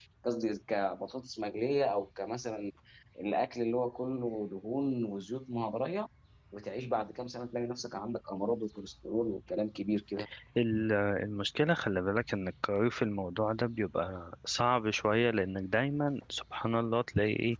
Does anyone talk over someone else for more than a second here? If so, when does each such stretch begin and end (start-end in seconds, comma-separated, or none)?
none